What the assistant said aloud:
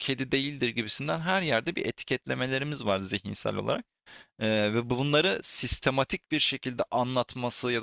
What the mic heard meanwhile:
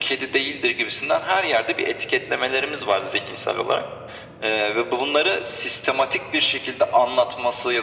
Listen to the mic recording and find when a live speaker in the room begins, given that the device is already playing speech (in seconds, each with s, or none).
none